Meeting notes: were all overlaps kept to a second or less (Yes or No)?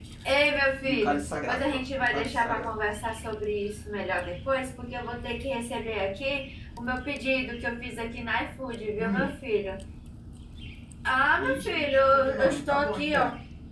No